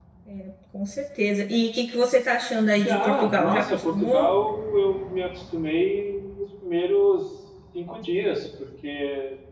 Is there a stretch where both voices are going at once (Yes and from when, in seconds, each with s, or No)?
Yes, from 2.7 s